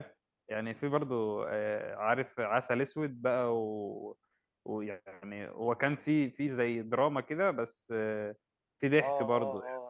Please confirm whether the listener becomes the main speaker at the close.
Yes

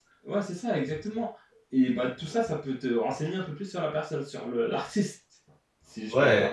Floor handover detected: Yes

